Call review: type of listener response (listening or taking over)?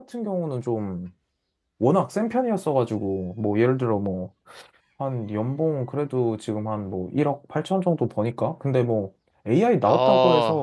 listening